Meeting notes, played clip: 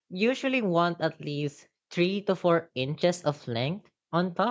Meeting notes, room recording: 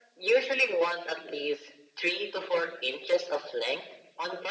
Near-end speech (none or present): none